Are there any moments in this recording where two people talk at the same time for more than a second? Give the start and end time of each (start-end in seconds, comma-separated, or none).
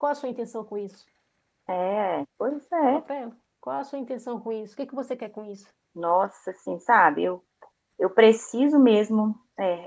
none